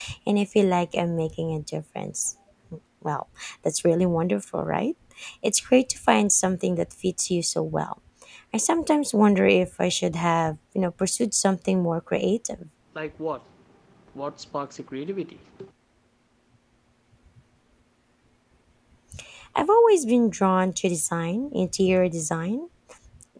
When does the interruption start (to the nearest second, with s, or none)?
none